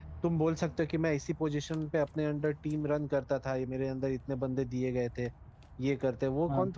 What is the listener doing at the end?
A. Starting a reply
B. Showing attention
B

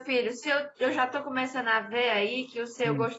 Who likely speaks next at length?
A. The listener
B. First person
B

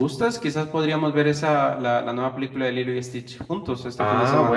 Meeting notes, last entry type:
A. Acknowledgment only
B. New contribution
B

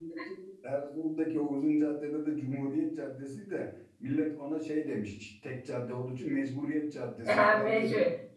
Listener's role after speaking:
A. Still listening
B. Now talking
B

